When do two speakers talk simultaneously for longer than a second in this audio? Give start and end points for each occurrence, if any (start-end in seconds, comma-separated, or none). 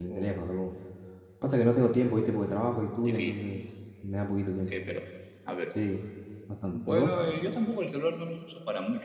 none